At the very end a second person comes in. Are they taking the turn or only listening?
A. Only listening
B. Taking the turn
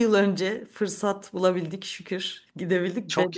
A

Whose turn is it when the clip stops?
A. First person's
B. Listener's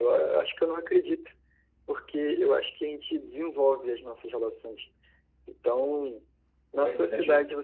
A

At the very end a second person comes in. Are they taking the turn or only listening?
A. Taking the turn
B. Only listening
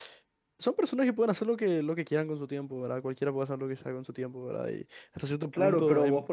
A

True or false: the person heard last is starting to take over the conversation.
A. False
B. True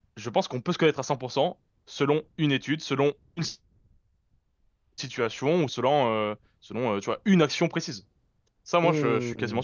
B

